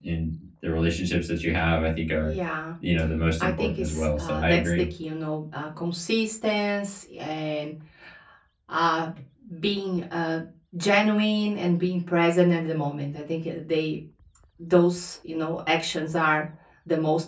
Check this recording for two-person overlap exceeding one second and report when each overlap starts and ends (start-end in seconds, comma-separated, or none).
3.4-4.9